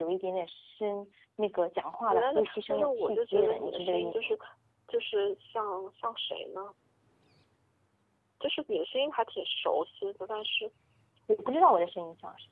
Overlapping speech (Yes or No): Yes